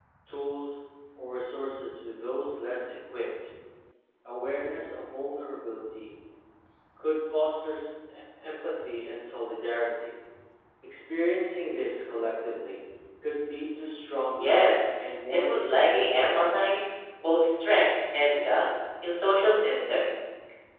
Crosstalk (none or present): present